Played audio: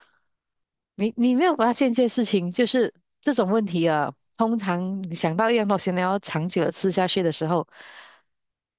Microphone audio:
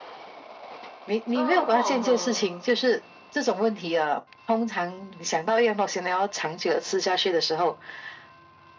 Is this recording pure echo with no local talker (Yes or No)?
No